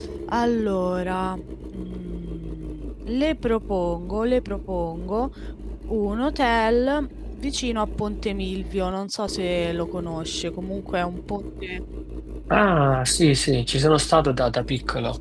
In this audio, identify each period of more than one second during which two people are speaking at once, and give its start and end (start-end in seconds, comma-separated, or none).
none